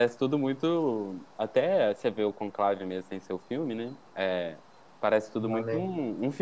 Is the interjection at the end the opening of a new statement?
No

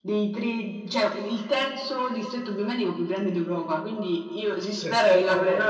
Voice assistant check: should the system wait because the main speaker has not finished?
Yes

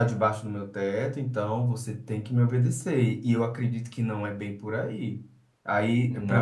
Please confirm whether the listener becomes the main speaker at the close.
No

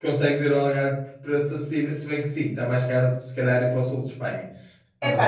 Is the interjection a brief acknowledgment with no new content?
No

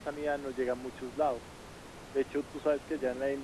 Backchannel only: Yes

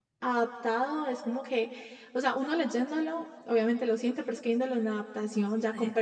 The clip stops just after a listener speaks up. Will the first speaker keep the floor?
Yes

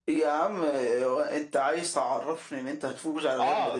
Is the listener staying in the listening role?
No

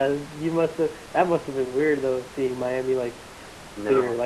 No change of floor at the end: No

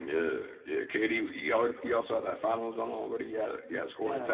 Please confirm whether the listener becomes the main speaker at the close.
Yes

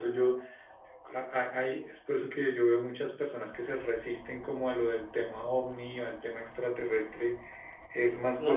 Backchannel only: No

